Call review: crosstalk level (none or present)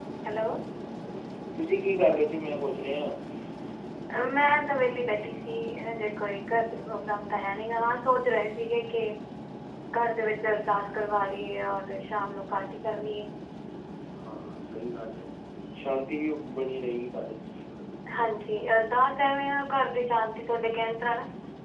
none